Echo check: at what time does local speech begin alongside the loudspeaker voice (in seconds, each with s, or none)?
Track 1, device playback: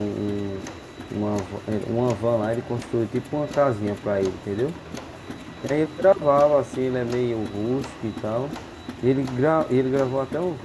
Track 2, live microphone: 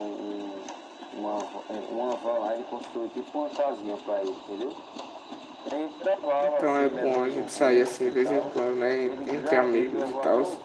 6.4 s